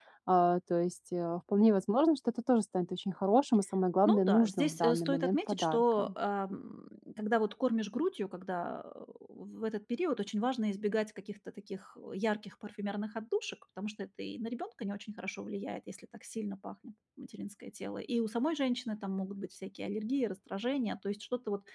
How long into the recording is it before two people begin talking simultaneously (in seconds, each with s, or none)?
4.0 s